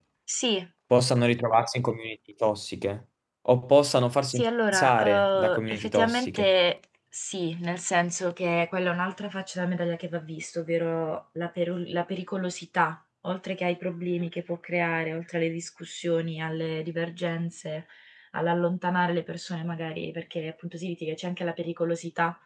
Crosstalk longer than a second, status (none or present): present